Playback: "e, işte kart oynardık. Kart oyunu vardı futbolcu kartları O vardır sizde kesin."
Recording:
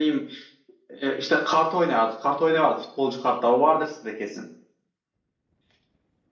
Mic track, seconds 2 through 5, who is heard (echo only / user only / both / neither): echo only